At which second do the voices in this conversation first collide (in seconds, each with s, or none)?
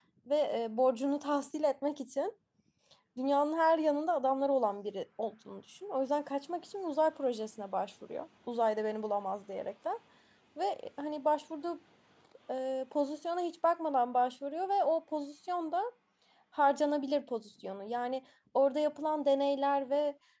none